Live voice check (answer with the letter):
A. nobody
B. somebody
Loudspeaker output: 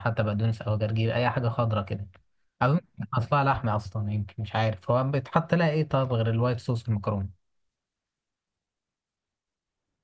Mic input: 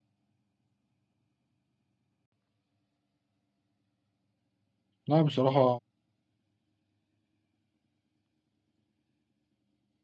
B